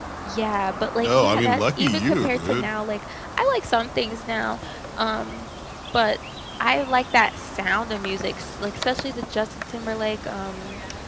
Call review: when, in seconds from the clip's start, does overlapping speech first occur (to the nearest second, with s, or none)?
1 s